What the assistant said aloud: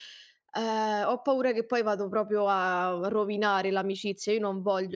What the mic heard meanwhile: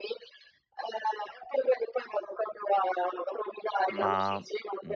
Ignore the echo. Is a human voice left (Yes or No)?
Yes